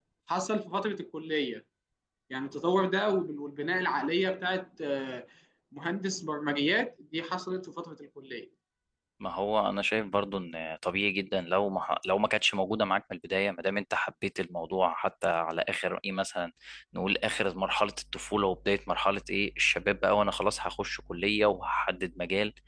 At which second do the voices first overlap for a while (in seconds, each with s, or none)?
none